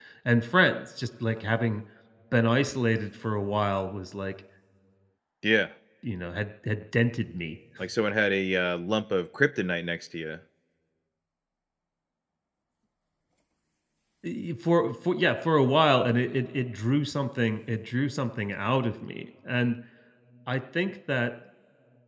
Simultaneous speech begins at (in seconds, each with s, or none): none